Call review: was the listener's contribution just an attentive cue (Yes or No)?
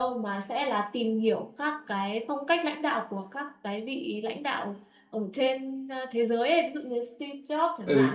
Yes